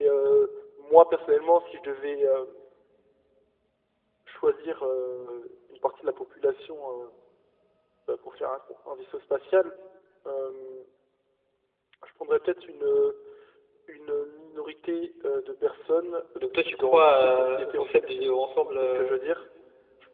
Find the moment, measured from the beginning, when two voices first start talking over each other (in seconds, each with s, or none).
16.4 s